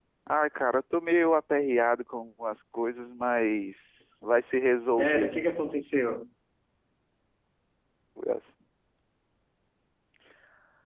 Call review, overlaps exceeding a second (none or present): none